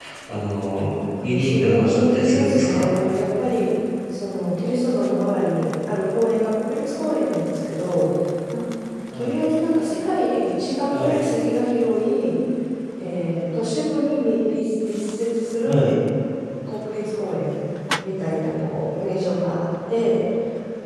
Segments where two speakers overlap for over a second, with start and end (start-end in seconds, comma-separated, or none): 1.2-2.9